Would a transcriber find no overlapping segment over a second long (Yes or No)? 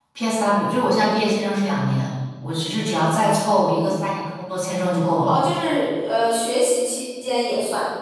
Yes